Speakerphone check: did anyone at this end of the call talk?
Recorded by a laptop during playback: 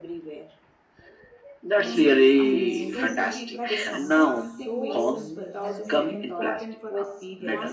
Yes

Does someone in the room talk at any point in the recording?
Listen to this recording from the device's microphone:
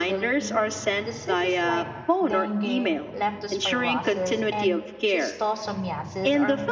Yes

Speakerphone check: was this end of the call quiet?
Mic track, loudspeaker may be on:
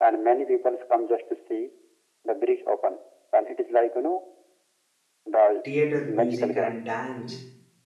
No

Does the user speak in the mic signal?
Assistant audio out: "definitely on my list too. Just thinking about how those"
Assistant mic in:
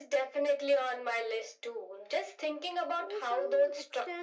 Yes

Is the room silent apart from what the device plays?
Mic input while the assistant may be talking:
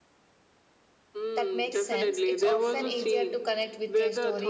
No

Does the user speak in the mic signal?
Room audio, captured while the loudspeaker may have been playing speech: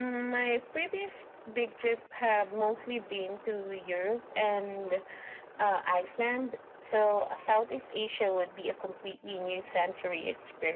No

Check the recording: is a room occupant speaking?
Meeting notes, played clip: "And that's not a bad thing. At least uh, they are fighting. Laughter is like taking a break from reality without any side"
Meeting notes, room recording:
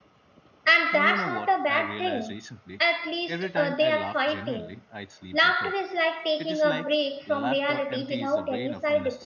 Yes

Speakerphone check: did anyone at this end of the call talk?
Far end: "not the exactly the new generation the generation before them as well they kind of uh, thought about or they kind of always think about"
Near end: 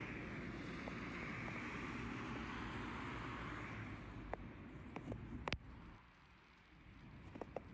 No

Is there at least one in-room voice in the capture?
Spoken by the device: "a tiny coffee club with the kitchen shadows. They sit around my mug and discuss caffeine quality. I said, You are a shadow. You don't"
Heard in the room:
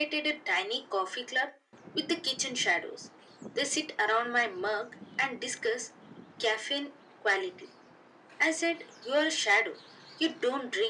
No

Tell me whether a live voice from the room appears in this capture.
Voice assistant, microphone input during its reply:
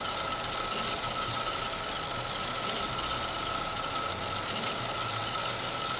No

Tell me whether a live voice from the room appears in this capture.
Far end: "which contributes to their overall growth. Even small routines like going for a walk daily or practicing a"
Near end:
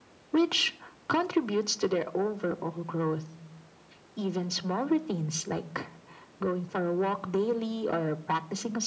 No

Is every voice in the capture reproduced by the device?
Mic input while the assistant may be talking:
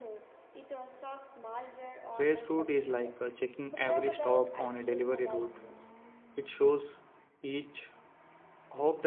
No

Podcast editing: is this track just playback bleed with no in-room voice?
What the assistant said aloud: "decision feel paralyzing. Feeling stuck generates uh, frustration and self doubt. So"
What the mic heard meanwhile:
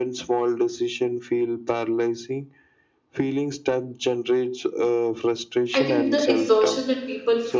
No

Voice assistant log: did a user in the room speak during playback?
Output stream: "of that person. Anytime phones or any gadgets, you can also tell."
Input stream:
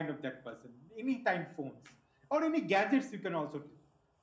No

